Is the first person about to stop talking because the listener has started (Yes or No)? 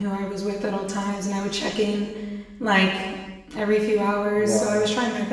No